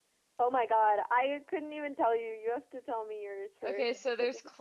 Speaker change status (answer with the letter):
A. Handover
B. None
A